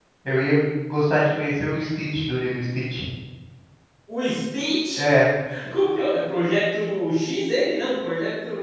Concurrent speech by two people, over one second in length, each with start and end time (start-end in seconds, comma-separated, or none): none